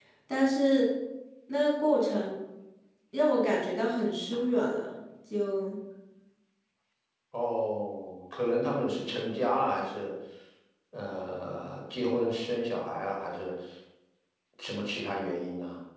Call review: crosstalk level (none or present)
none